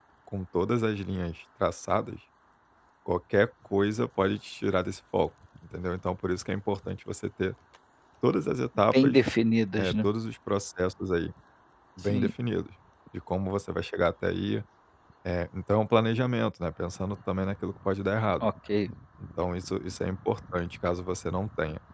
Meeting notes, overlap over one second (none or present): none